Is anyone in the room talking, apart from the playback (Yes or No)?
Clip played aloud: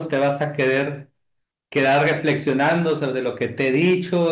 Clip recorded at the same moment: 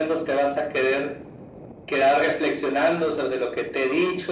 No